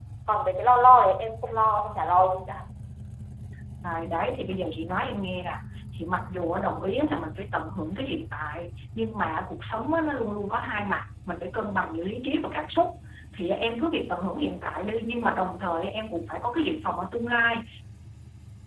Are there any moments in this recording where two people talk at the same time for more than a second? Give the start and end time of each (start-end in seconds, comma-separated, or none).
none